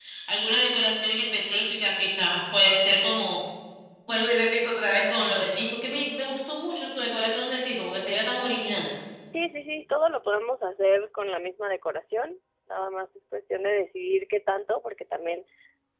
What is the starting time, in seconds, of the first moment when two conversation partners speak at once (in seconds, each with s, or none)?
none